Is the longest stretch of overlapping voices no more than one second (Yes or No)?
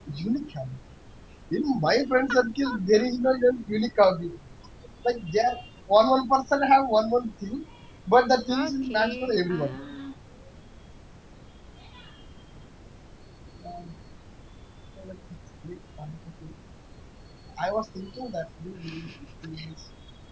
No